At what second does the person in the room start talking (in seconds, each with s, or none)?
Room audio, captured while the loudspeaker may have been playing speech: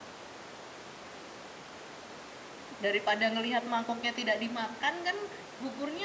2.7 s